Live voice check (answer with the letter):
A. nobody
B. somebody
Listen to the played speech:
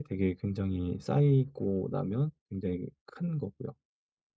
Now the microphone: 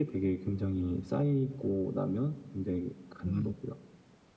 B